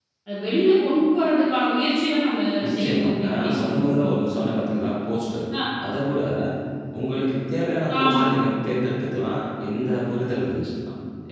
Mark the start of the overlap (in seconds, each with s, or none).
2.6 s